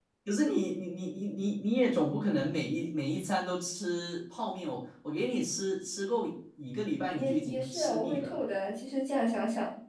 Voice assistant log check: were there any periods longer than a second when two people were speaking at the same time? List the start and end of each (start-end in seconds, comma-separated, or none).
7.1-8.4